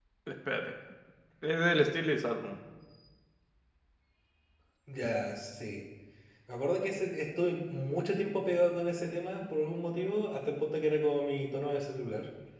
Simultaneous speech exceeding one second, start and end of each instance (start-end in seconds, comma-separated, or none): none